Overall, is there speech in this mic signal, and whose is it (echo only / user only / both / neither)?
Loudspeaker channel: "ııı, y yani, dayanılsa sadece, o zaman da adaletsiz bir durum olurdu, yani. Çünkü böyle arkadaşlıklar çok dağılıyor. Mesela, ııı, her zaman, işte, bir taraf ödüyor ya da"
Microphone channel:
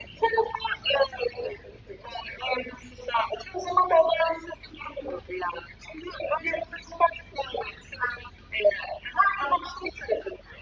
echo only